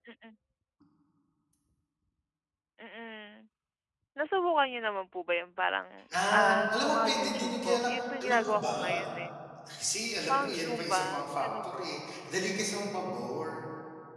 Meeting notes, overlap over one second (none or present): present